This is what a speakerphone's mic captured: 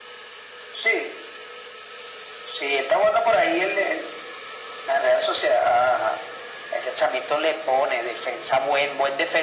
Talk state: echo only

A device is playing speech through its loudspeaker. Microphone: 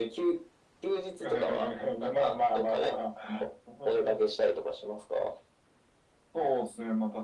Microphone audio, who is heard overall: echo only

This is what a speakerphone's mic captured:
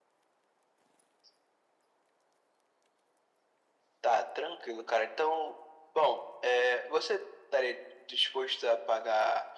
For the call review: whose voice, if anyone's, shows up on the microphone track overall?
echo only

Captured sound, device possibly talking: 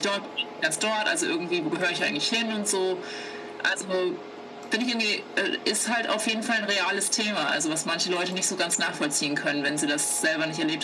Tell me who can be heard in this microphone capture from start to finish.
echo only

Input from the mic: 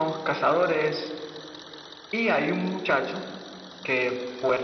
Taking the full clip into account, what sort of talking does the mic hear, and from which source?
echo only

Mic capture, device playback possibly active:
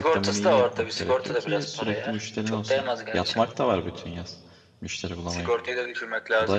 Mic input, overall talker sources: both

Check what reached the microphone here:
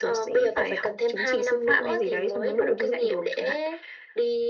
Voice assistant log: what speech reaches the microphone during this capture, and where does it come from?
echo only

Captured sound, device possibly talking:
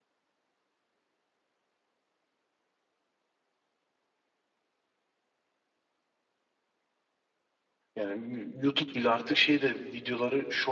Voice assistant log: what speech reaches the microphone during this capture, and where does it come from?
user only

